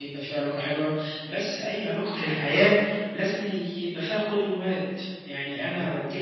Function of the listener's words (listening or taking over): listening